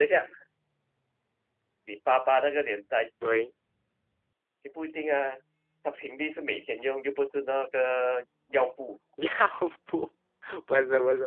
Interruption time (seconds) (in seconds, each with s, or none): none